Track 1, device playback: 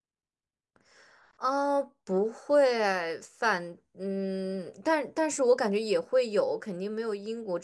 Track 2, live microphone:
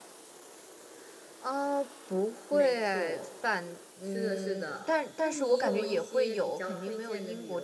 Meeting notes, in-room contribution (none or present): present